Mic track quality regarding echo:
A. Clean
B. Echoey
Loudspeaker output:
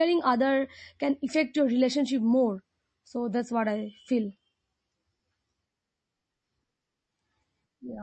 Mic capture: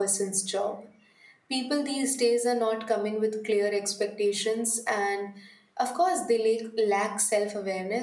A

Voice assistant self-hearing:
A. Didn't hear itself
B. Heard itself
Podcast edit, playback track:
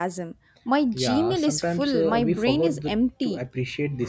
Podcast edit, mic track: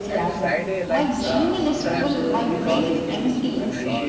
B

